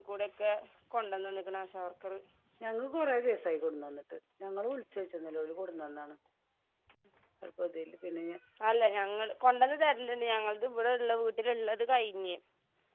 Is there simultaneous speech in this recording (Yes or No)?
No